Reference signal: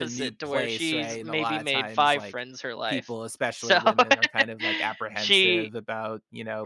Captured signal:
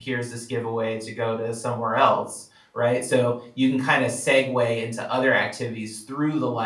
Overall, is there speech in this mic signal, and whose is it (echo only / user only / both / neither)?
user only